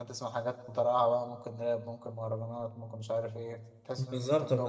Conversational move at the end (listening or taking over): taking over